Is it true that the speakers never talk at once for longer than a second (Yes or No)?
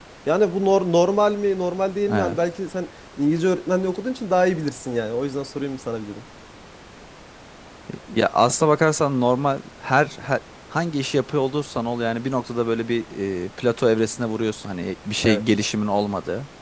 Yes